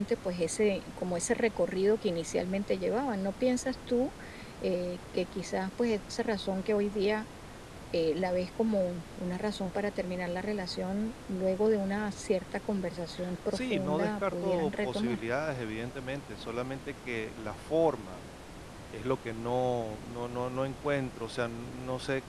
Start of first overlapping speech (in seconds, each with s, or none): 13.5 s